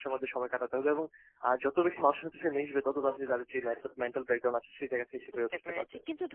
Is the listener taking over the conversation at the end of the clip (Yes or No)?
Yes